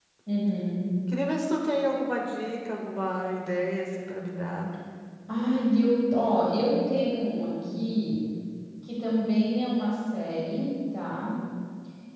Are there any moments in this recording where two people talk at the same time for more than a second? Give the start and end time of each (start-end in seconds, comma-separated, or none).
none